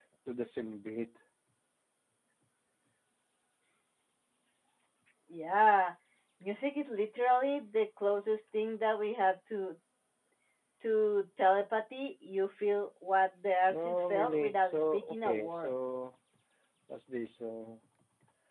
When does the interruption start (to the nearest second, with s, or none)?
14 s